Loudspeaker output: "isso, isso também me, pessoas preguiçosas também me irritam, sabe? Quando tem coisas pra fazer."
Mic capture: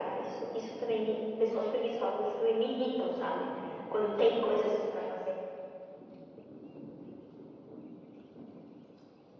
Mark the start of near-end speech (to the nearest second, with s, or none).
1 s